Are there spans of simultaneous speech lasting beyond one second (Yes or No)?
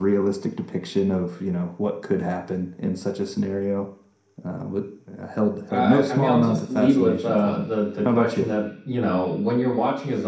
Yes